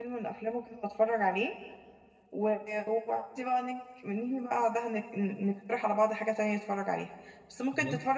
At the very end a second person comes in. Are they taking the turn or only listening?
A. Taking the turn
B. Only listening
B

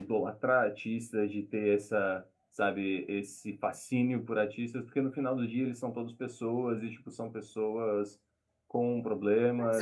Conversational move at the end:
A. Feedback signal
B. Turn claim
B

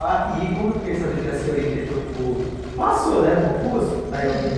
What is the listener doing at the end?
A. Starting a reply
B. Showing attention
B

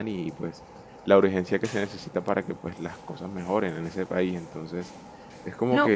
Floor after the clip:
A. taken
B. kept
A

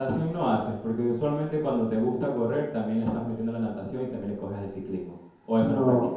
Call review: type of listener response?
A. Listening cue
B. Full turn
B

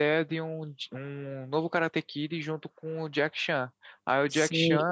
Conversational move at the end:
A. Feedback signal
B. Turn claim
B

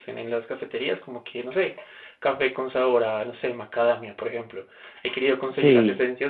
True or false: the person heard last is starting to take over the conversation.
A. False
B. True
A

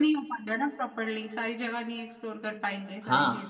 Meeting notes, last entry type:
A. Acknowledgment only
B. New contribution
B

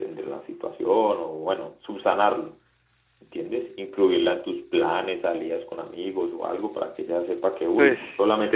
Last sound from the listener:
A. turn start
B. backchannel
B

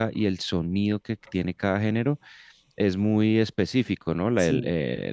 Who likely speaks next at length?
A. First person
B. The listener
A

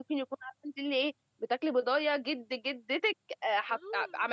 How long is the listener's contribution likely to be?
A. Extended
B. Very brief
A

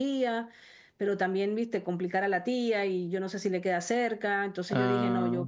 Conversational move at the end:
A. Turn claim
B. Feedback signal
B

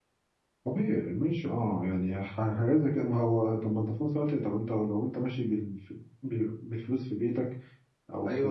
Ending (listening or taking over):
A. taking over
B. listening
A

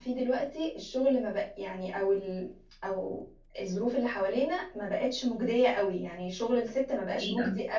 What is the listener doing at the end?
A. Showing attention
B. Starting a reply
A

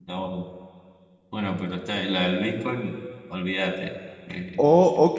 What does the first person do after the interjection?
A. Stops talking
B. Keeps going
A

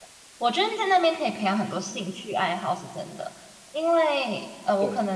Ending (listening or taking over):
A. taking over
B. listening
B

